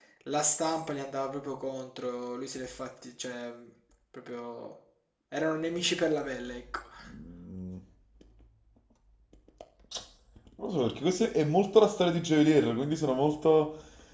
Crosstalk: none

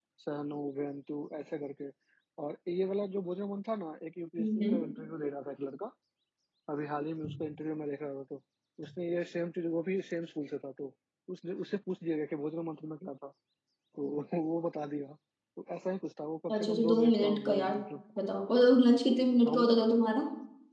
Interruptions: present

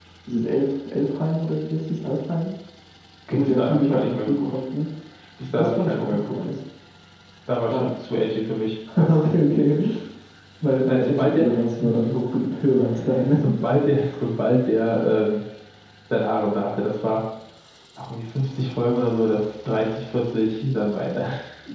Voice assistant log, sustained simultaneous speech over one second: present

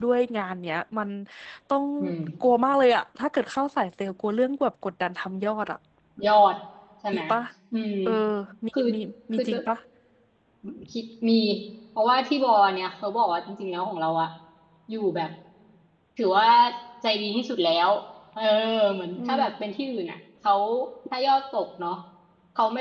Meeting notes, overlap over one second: none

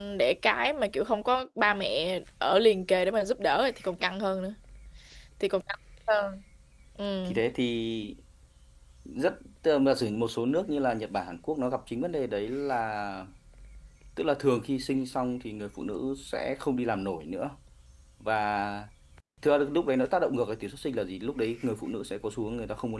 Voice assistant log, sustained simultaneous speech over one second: none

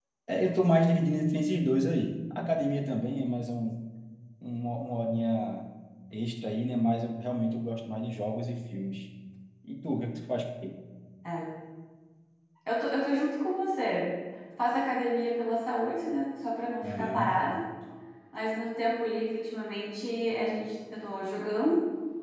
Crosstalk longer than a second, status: none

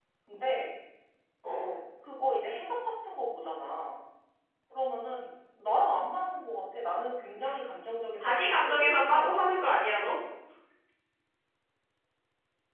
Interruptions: present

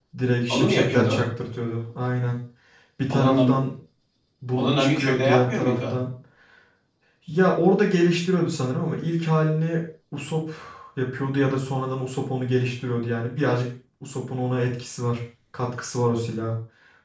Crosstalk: present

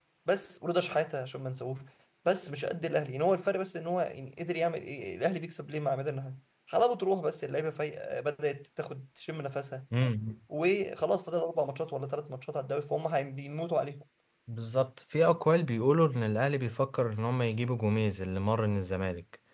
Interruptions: none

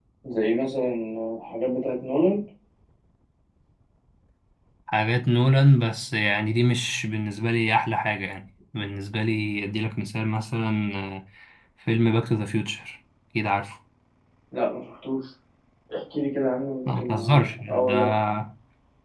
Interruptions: present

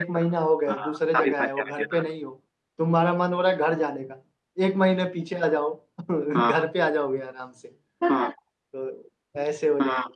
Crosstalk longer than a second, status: present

